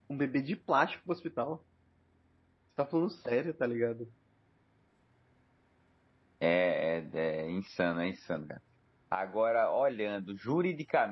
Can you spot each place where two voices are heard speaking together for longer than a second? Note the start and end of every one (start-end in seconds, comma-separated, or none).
none